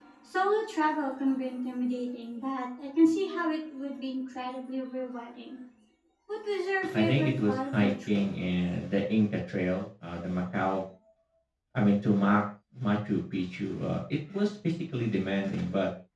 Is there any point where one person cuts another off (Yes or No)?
Yes